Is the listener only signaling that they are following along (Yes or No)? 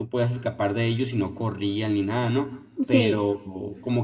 Yes